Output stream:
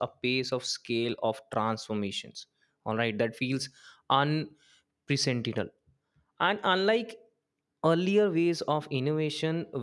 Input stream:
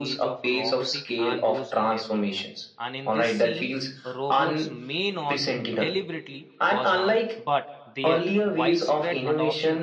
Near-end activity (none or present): present